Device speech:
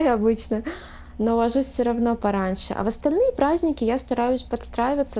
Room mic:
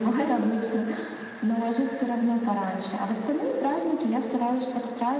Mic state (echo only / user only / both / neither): echo only